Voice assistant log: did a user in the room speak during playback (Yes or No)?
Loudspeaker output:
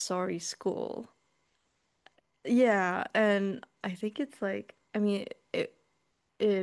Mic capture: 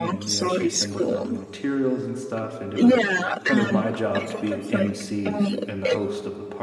Yes